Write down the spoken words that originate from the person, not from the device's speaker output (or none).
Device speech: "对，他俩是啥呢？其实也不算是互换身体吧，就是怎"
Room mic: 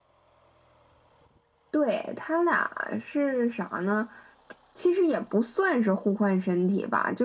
none